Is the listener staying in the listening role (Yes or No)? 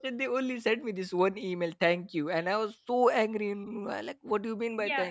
No